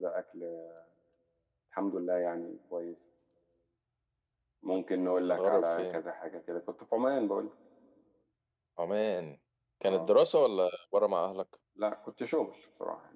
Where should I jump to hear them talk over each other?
5 s

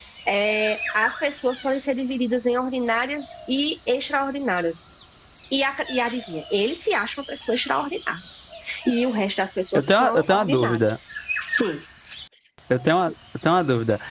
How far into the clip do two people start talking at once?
10 s

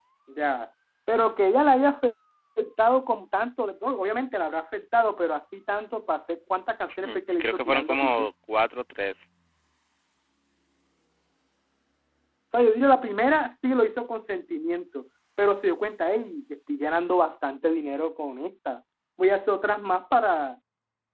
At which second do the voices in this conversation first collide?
7 s

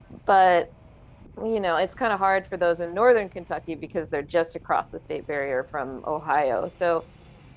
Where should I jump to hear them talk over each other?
none

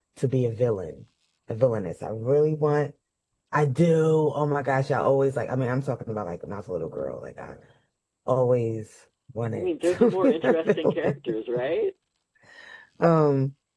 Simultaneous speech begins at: 10 s

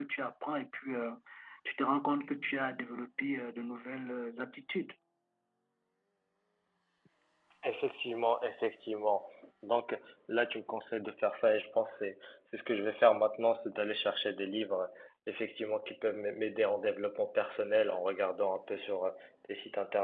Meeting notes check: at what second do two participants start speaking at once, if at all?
none

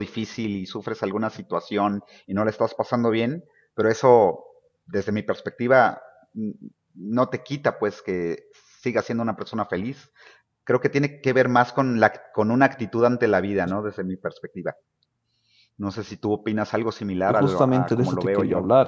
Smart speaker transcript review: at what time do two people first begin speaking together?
17 s

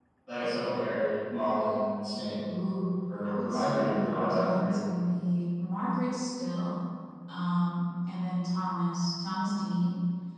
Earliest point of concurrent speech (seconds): 3 s

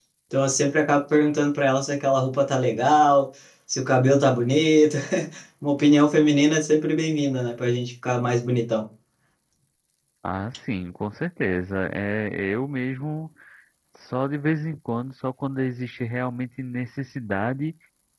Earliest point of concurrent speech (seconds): none

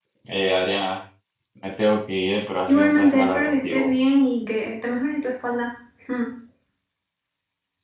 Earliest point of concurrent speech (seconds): 3 s

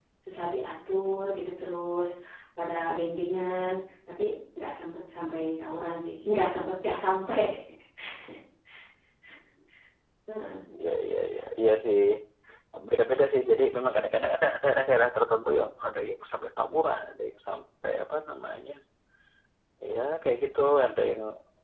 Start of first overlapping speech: none

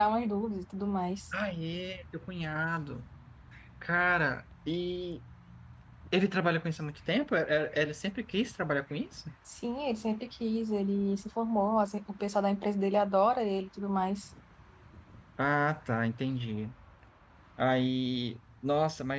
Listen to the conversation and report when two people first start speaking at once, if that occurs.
none

